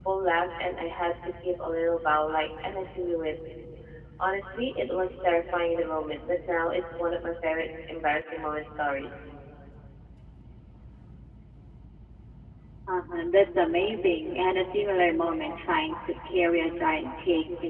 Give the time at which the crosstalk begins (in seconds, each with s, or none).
none